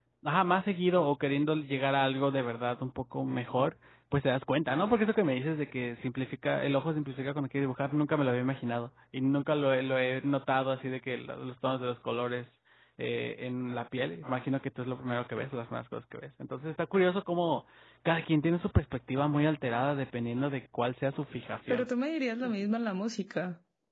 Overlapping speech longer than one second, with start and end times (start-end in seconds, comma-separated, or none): none